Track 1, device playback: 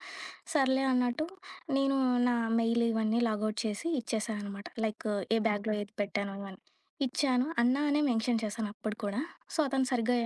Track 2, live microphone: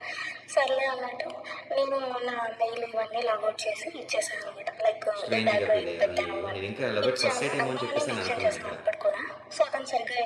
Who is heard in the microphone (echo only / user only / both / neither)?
both